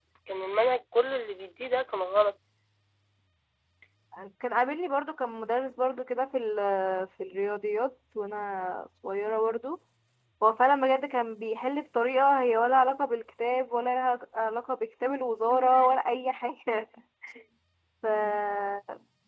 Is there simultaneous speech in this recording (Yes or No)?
No